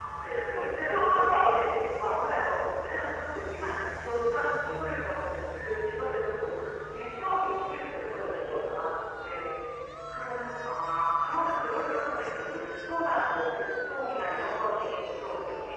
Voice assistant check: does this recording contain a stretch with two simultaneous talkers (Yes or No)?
Yes